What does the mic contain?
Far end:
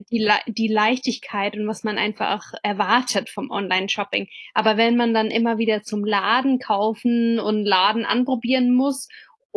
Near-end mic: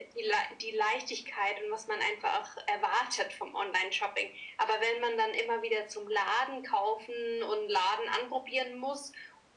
echo only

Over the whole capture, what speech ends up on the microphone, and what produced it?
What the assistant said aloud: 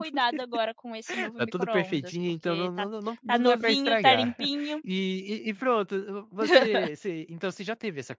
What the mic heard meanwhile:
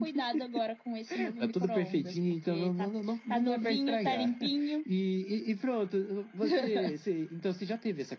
echo only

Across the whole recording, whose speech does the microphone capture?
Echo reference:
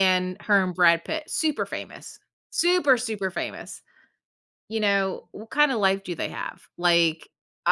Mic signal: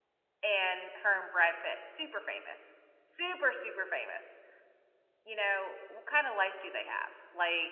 echo only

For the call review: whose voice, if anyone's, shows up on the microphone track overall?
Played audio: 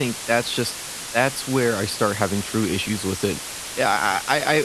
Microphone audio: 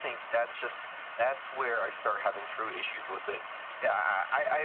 echo only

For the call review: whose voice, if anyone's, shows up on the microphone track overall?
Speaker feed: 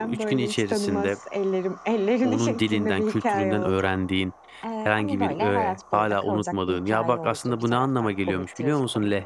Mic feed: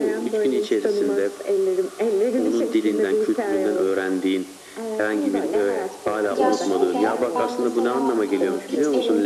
both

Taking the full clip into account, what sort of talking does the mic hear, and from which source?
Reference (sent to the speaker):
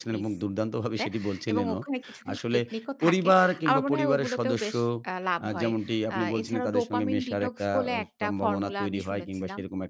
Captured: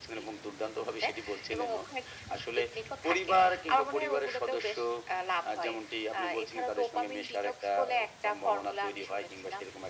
echo only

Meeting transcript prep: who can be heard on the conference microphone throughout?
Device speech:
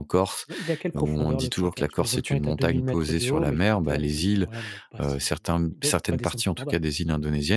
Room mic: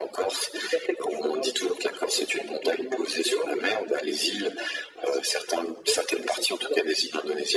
echo only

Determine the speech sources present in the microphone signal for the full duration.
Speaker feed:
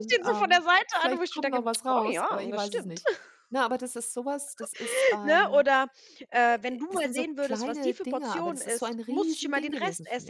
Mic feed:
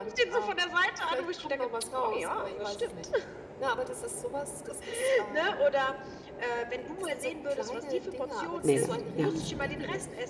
both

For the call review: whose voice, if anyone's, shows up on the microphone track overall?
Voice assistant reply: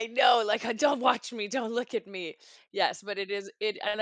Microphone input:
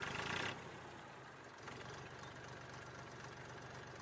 neither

